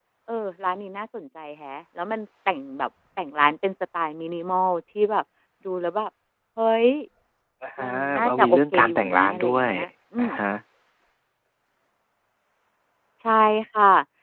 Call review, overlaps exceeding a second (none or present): present